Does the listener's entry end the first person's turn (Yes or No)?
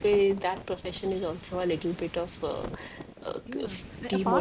Yes